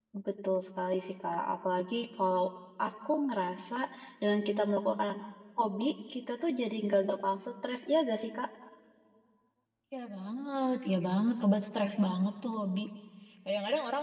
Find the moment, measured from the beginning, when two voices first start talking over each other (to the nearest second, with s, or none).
none